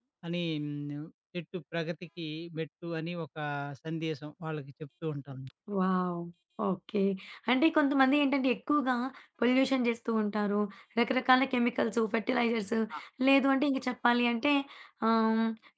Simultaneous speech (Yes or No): No